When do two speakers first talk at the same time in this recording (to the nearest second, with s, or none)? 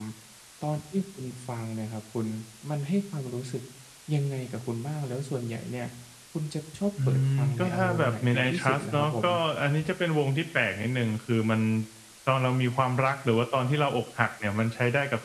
7 s